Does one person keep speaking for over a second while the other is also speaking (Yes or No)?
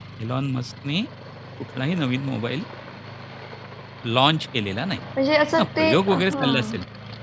Yes